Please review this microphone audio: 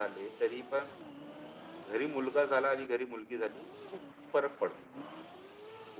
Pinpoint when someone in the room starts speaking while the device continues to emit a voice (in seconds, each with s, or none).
none